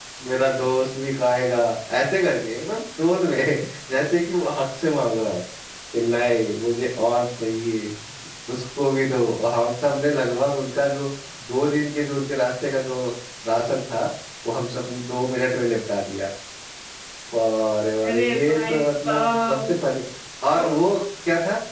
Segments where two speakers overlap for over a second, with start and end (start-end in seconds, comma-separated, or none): 18.1-19.7